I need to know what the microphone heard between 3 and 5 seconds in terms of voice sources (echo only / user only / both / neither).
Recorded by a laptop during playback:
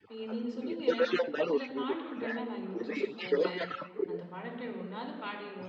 both